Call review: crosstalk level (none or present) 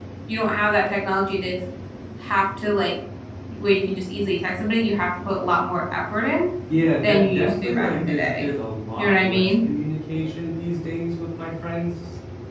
present